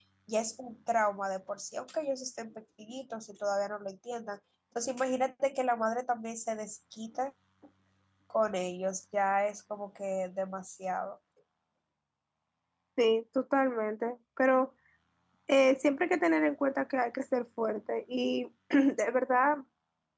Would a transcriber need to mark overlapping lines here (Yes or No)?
No